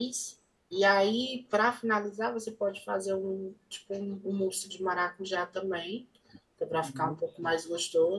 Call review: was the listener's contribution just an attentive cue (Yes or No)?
Yes